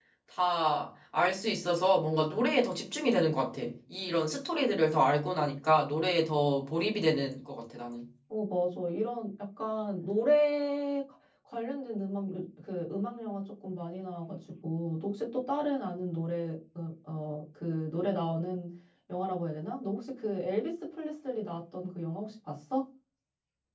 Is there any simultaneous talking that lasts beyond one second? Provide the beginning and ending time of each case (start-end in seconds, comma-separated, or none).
none